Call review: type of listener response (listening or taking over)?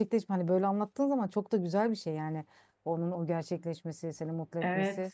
taking over